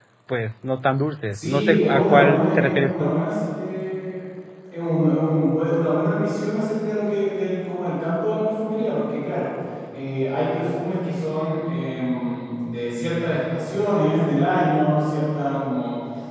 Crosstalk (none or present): present